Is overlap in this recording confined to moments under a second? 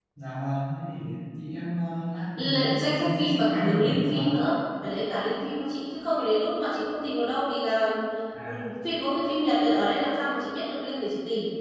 No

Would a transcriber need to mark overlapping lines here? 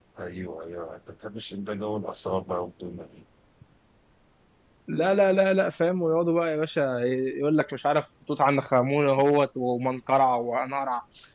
No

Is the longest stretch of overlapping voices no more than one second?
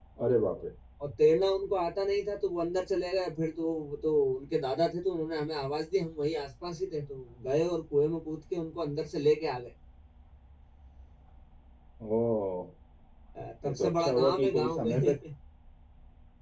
No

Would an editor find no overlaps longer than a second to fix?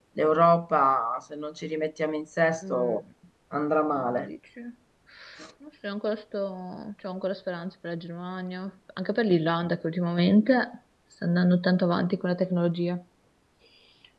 Yes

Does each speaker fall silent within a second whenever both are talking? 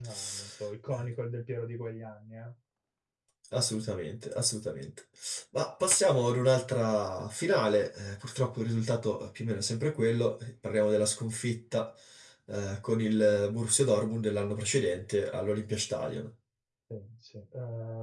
Yes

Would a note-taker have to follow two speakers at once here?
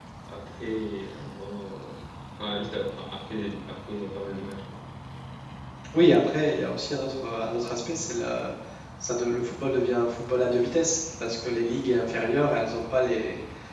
No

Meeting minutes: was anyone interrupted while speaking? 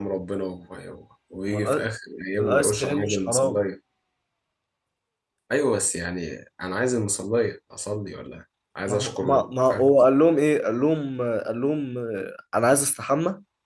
Yes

